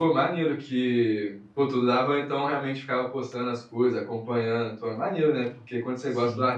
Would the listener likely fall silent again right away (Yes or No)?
Yes